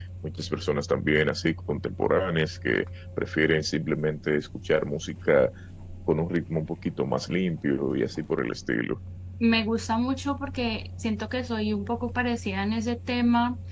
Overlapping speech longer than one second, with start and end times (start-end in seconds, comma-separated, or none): none